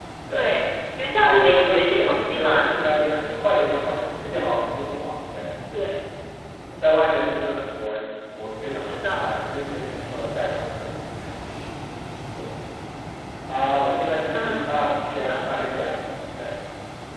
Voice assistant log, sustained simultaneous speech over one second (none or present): present